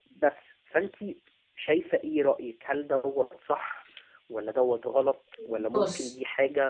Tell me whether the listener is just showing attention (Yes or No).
Yes